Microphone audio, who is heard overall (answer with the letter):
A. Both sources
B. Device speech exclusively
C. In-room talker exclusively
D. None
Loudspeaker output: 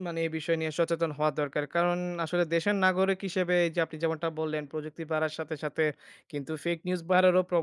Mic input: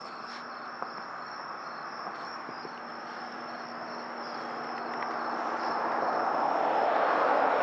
D